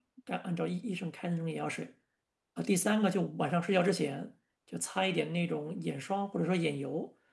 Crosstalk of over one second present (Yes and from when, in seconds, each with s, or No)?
No